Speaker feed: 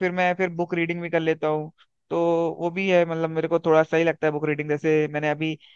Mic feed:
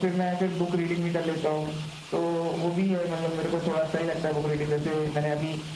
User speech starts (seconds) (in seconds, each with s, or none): none